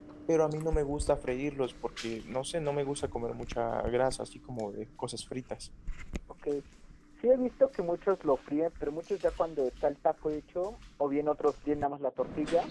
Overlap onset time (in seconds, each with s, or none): none